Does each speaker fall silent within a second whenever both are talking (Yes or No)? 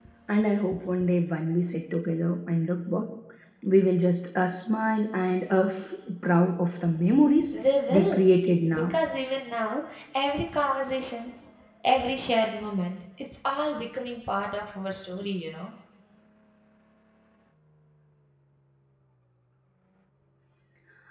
Yes